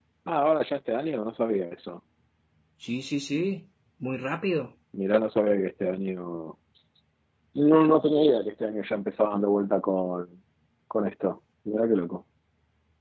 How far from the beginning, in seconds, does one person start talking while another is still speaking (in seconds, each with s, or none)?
none